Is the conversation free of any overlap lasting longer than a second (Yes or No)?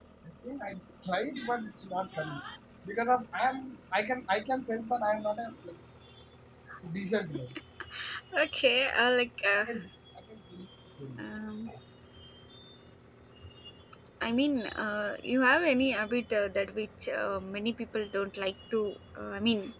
Yes